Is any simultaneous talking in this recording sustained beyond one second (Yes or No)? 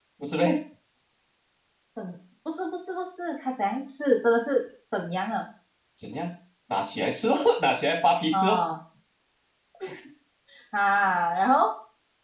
No